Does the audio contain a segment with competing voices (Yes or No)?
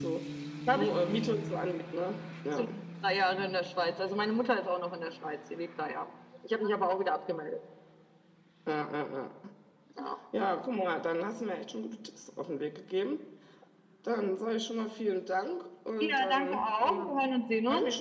Yes